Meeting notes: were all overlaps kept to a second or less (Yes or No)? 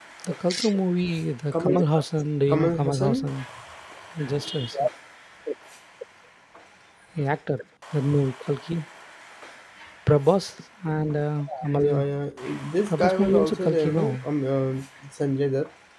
No